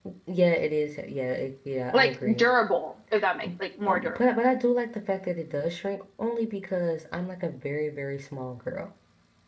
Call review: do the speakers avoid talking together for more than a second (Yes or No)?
Yes